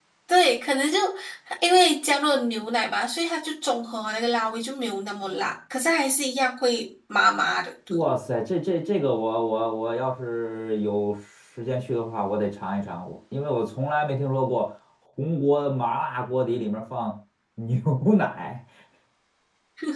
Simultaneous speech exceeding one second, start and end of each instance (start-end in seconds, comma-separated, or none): none